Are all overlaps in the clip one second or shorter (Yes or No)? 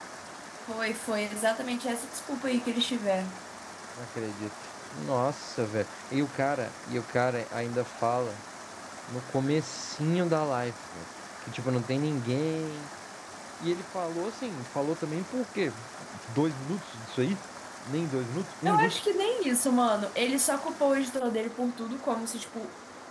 Yes